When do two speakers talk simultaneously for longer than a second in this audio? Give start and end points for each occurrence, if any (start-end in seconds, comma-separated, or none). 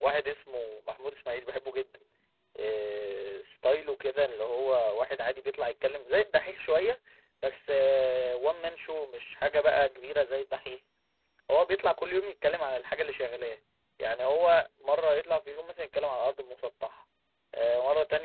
none